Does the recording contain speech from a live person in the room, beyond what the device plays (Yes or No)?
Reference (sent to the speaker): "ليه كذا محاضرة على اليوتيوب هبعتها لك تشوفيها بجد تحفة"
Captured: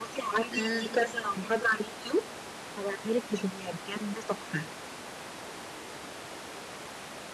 Yes